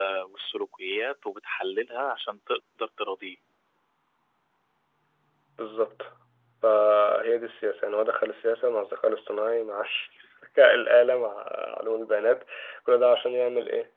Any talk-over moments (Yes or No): No